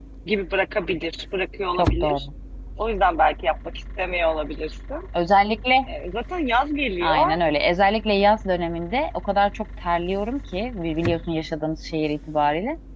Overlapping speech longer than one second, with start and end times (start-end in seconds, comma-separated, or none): none